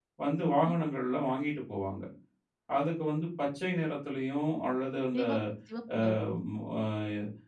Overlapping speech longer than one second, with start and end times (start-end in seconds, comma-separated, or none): none